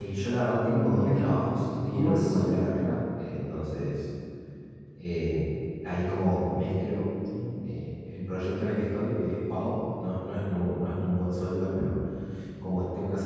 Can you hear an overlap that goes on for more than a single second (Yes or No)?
Yes